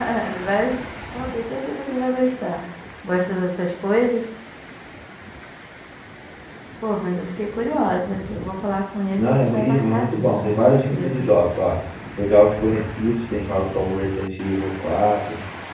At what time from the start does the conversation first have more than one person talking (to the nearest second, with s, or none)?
9 s